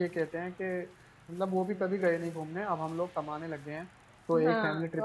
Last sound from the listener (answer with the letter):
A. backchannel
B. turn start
B